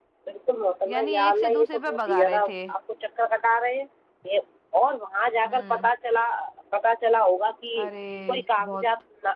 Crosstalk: present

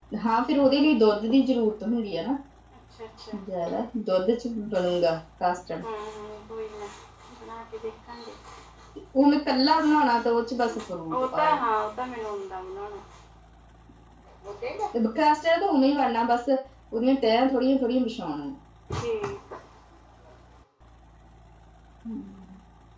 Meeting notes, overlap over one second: none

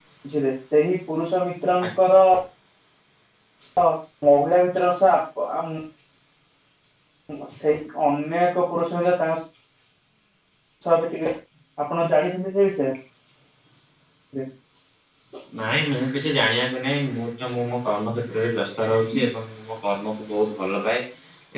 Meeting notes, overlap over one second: none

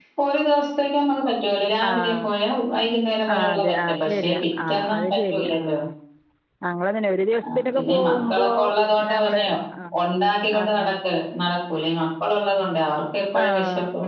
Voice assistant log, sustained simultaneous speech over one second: present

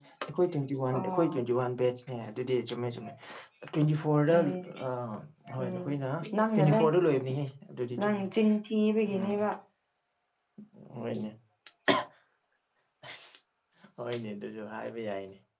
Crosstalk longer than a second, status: none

